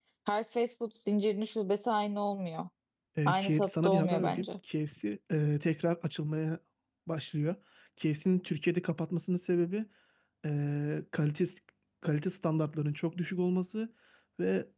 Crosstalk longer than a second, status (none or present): present